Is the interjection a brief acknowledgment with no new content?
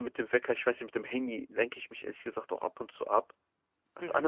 No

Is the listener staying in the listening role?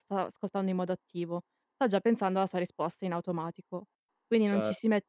Yes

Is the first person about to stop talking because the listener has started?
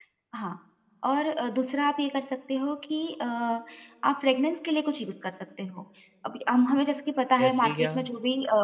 No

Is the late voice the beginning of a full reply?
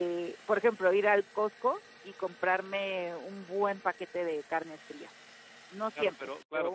Yes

